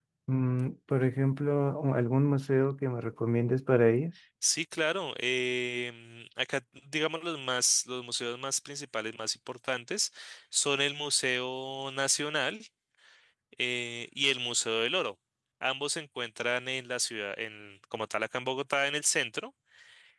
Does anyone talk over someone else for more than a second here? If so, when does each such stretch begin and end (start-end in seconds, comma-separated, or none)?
none